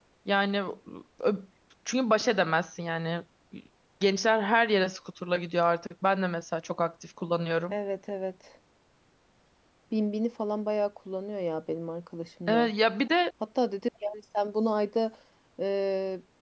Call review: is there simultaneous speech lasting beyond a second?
No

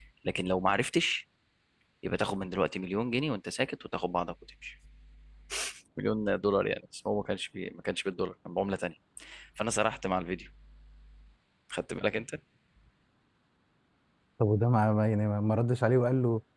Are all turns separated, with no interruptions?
Yes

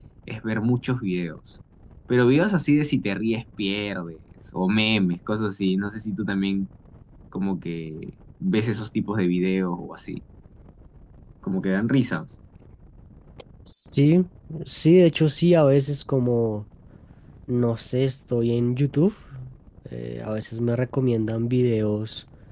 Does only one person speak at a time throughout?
Yes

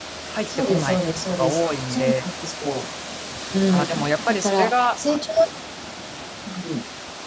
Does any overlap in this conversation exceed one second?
Yes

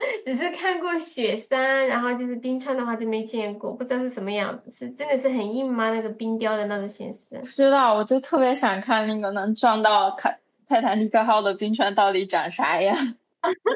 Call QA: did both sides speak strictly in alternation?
Yes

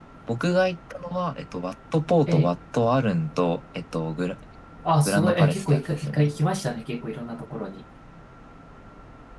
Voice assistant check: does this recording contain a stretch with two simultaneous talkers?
Yes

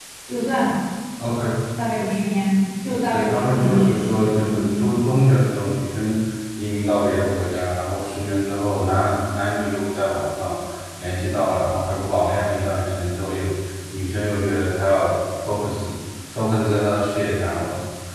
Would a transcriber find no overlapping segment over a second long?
No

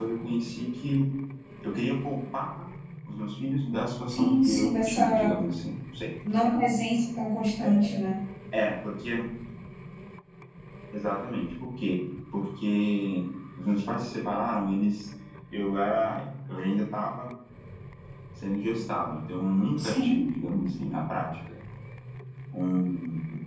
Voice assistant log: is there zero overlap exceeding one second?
No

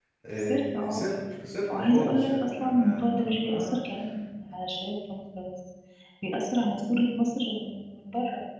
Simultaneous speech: Yes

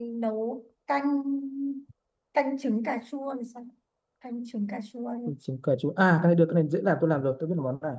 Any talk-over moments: No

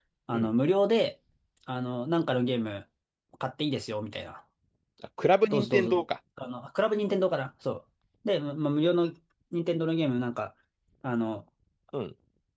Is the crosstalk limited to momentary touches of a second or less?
Yes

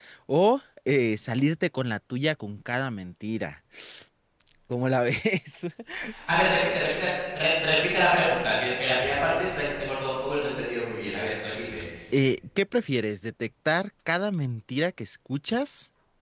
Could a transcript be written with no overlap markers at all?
Yes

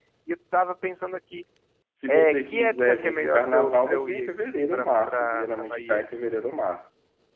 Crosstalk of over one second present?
Yes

